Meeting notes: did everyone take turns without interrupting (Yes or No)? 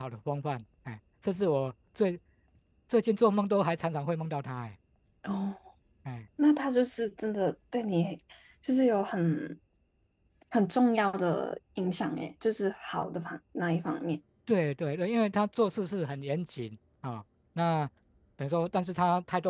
Yes